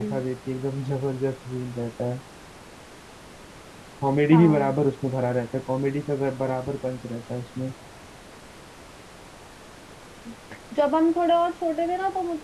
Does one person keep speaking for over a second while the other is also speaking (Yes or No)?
No